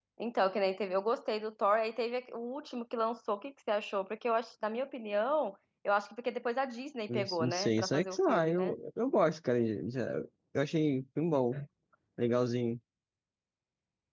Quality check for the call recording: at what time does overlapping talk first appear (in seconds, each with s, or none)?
7.1 s